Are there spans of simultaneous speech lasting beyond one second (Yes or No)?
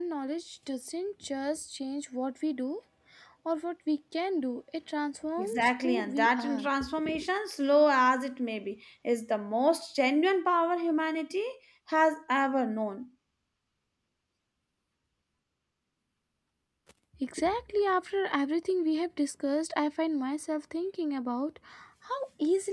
Yes